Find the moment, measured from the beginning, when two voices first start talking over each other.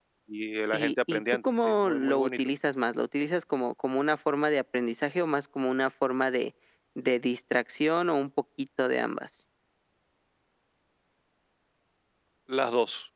1 s

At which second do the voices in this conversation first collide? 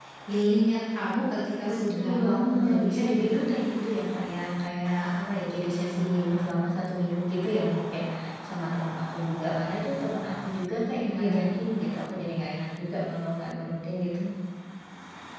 2 s

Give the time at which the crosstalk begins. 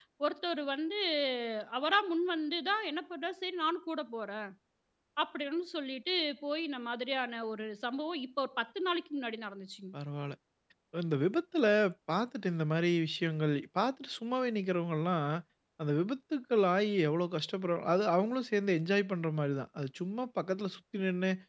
none

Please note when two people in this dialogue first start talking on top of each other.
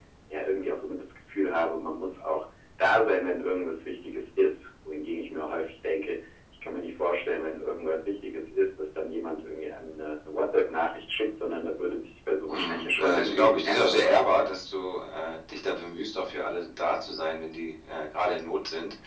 13 s

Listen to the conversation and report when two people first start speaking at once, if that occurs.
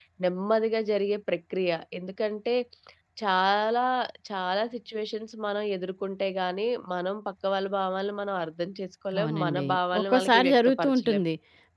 9 s

